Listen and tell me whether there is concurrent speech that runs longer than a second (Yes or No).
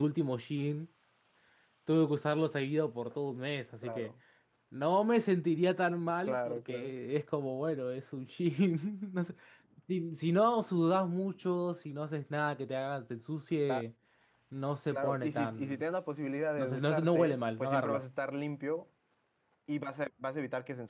Yes